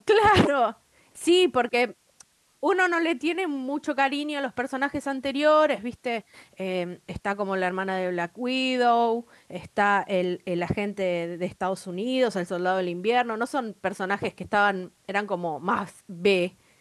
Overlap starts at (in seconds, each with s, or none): none